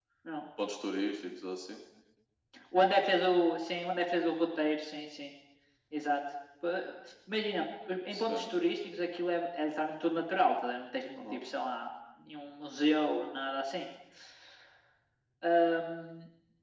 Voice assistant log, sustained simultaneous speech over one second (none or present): none